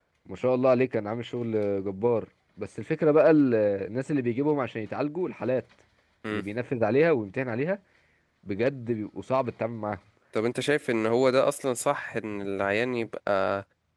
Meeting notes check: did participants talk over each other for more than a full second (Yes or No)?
No